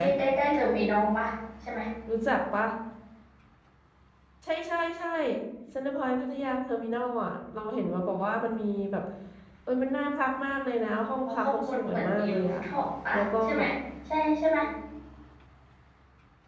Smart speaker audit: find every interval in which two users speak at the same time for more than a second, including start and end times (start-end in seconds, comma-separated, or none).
11.2-12.6